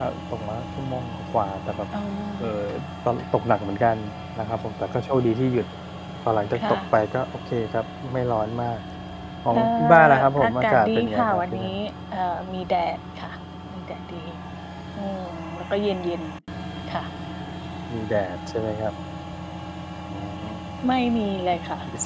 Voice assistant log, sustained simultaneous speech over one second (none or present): present